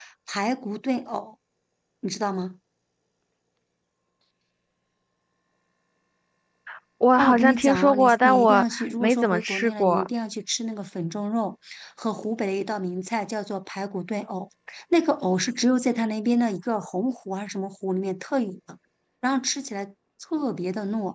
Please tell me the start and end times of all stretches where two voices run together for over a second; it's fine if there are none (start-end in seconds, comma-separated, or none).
7.2-10.1